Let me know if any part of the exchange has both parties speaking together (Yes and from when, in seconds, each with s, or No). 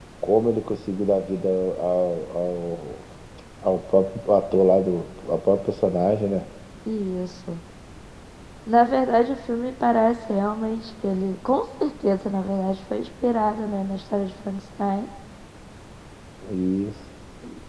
No